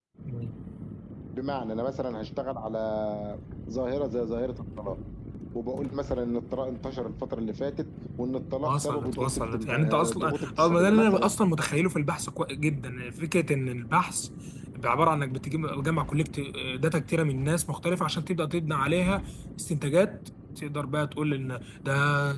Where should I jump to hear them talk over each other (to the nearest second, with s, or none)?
9 s